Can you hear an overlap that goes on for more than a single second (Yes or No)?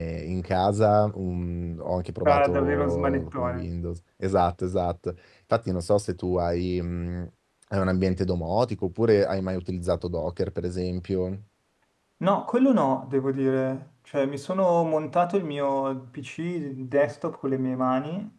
Yes